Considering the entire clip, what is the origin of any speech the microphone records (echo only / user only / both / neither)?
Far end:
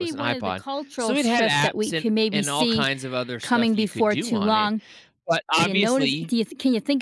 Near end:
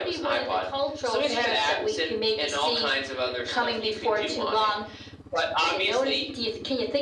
echo only